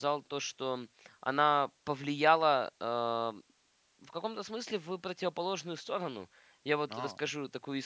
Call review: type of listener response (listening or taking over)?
listening